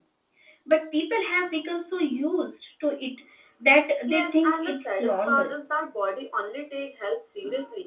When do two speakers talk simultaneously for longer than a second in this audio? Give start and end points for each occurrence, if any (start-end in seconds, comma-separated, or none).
4.1-5.5